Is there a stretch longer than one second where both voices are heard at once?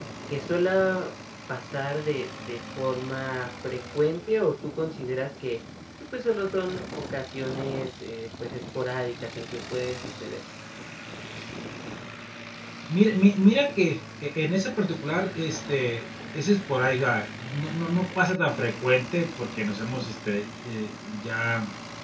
No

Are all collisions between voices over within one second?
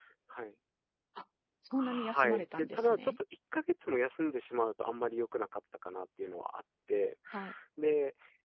No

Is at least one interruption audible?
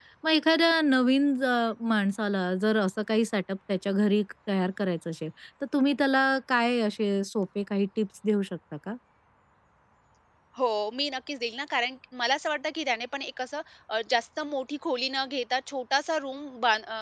No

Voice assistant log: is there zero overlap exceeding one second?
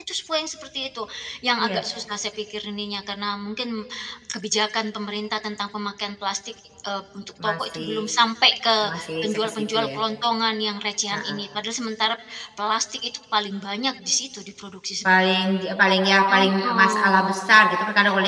No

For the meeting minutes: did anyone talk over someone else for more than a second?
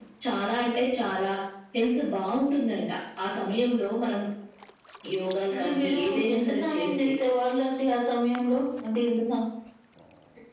Yes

